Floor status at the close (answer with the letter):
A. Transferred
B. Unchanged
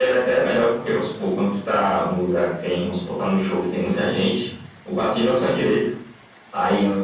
B